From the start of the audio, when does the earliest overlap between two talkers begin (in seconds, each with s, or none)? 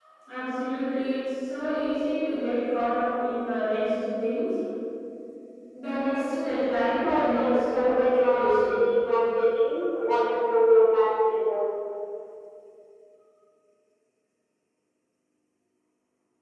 6.8 s